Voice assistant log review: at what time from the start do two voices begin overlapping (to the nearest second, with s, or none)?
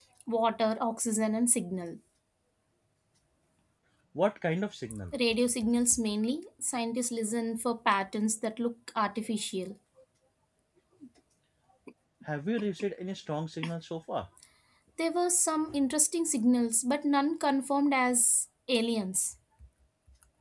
none